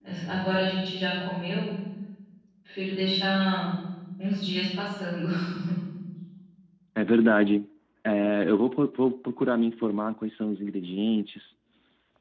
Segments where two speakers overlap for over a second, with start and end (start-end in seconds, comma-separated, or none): none